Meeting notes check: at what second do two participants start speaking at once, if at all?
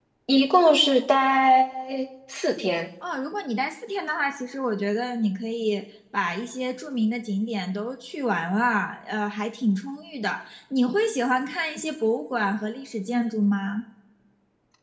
none

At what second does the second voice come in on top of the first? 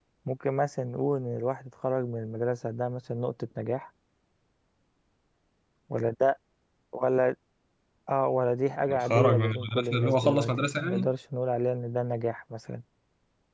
8.9 s

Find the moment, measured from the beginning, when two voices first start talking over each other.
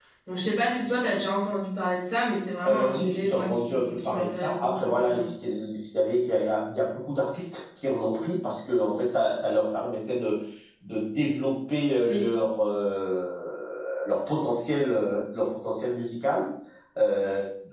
2.6 s

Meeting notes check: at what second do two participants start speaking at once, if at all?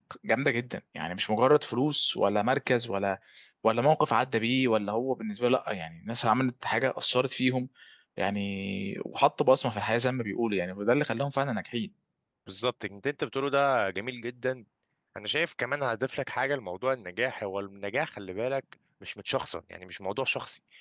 none

